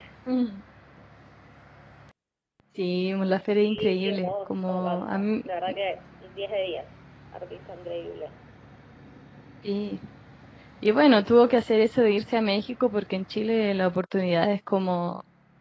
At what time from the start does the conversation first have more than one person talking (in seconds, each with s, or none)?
3.6 s